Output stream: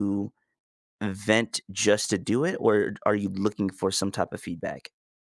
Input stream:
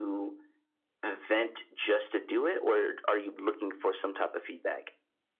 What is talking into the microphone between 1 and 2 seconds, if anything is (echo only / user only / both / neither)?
echo only